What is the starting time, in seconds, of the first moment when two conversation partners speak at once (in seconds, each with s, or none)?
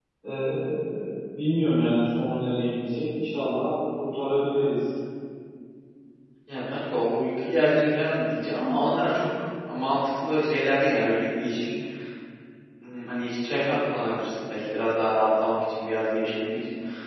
none